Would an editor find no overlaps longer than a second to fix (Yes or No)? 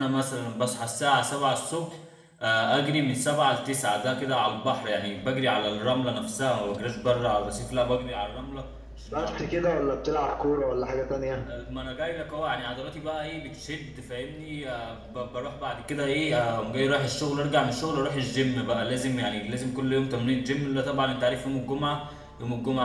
Yes